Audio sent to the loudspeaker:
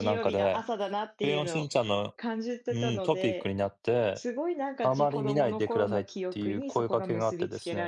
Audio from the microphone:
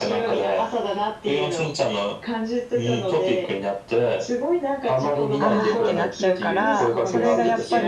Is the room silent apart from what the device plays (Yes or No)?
No